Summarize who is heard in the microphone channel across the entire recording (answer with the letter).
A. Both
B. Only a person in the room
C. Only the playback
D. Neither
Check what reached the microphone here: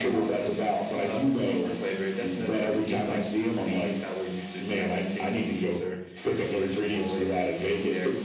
C